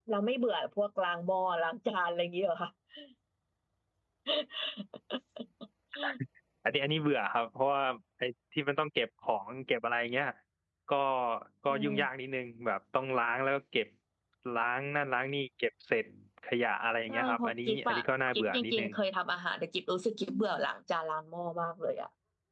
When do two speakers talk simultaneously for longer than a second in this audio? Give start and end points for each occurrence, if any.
17.1-18.9

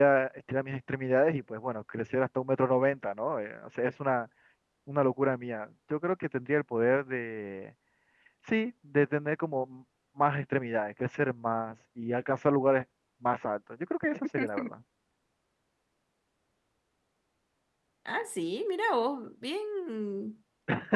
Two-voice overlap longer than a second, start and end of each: none

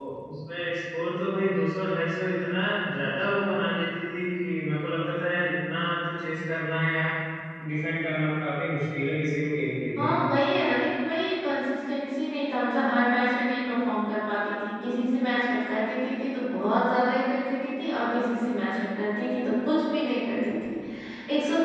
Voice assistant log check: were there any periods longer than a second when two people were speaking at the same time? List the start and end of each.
none

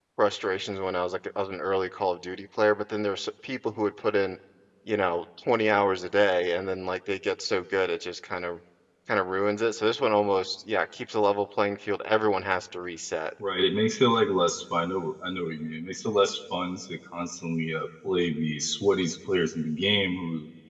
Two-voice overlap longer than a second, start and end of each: none

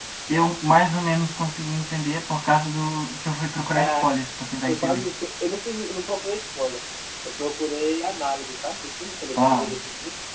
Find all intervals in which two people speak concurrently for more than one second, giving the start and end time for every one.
none

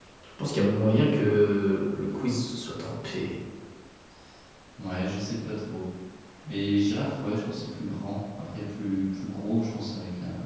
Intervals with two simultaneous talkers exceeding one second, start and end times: none

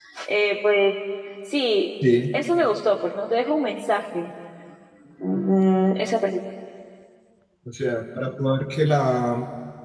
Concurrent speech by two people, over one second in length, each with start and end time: none

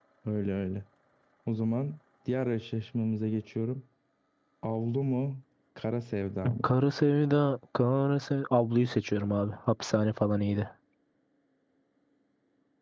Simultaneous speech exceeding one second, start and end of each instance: none

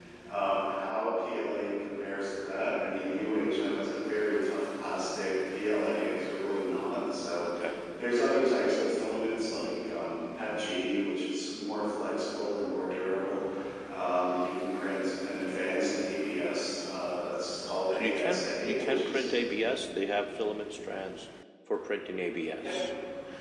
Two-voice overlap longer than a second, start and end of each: 17.9-19.3

